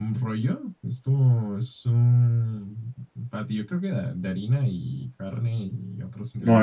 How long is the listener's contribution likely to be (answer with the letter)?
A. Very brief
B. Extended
B